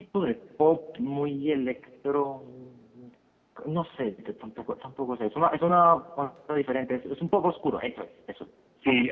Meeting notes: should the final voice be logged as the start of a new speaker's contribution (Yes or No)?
Yes